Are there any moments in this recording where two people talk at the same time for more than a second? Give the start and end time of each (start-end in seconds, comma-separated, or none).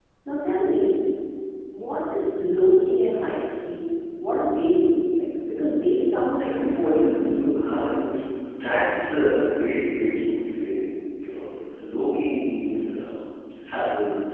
none